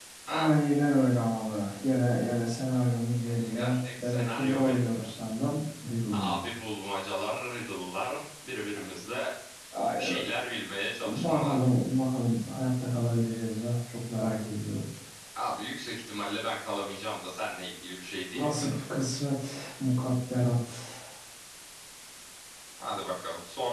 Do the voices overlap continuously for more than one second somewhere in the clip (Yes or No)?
Yes